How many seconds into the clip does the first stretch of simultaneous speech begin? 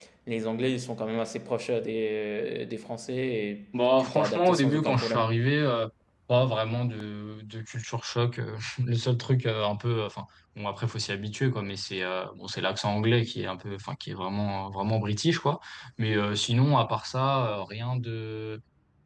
4.0 s

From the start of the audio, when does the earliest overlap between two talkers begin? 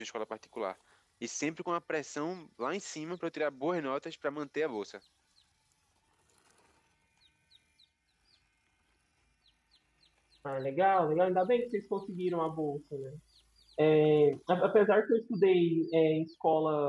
none

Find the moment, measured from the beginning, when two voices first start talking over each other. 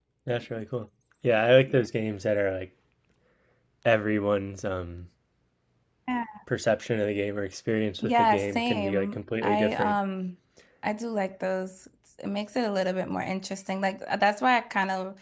8.0 s

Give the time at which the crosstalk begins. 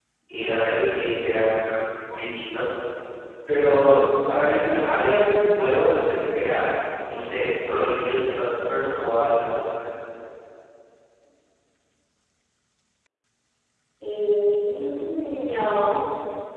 none

